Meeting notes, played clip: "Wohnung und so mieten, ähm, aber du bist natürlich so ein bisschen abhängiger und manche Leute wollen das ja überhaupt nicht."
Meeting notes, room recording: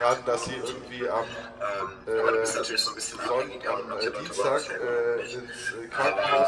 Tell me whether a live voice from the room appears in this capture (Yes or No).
Yes